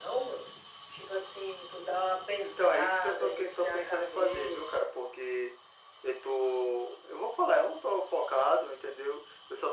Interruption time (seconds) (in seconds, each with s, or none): 2.4 s